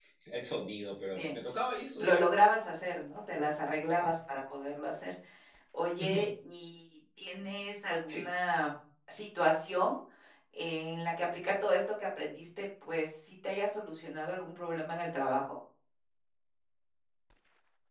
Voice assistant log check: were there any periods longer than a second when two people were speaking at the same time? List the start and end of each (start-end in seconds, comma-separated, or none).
none